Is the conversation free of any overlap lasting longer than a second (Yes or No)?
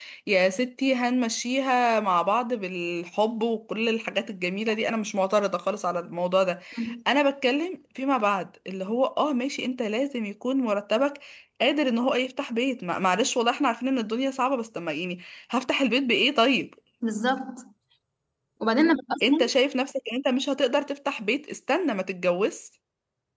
Yes